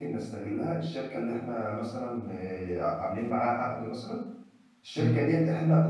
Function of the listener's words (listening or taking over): listening